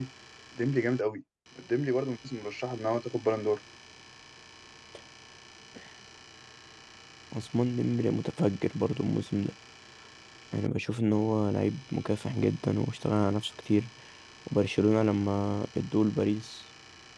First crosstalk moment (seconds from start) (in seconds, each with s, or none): none